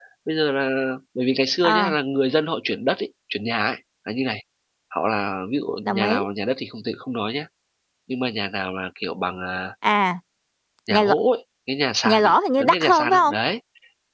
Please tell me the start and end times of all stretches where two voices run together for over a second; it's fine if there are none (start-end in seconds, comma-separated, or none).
12.0-13.3